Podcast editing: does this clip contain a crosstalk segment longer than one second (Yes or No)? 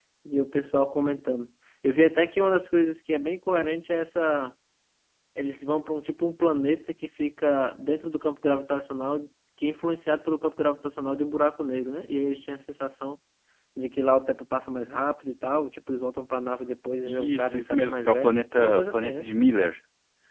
Yes